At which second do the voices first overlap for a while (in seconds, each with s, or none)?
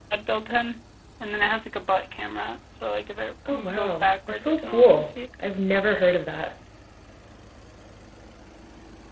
3.7 s